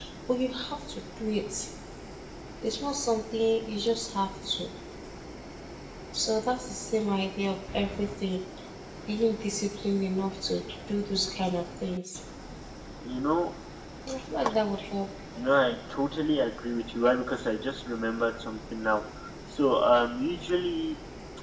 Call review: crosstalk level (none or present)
none